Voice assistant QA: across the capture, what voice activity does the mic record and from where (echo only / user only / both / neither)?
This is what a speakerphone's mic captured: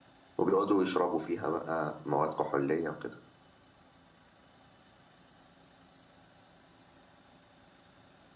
user only